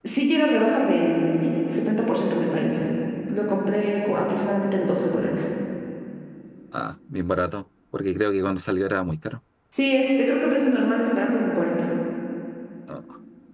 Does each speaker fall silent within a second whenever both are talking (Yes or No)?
Yes